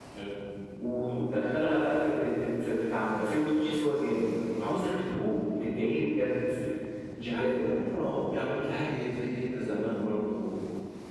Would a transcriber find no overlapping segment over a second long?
Yes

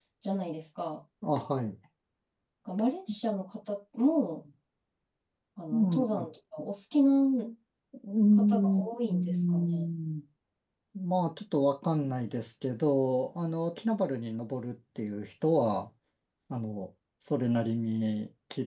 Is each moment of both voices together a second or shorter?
No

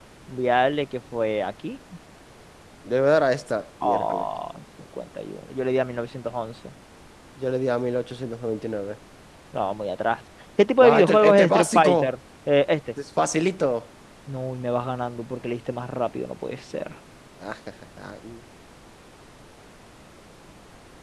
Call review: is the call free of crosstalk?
No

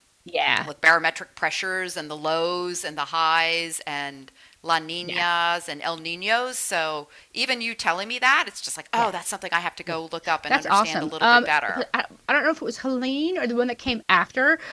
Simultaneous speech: Yes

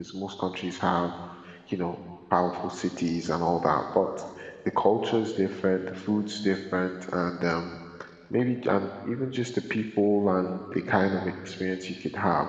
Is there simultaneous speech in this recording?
No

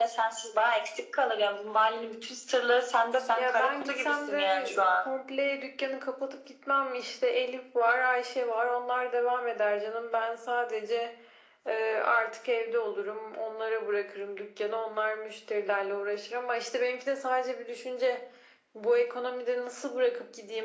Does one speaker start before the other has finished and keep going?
Yes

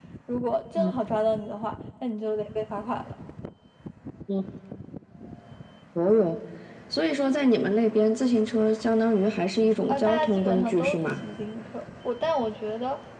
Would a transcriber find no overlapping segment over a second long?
No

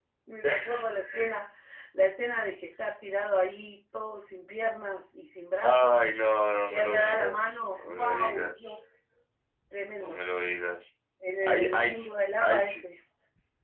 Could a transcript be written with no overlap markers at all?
No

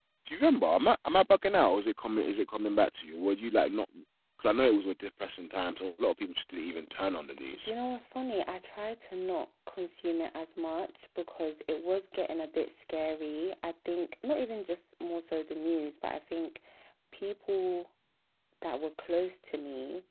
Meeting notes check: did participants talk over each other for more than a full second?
No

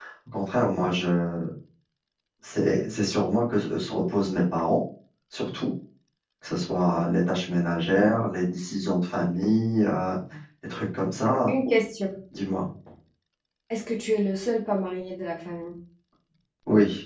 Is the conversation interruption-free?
Yes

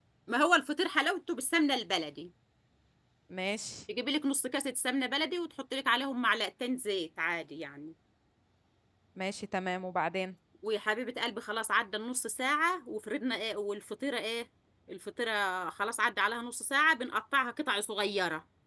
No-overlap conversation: Yes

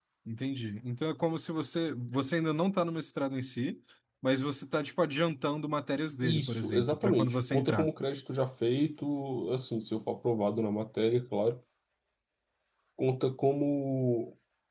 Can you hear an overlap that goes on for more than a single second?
Yes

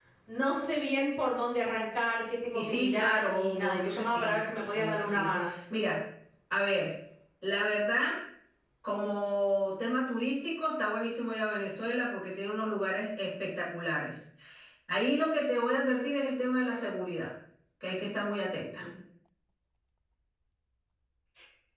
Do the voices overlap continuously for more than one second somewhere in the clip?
Yes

